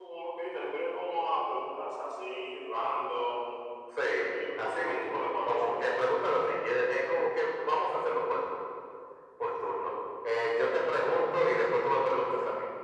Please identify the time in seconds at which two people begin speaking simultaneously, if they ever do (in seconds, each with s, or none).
4.6 s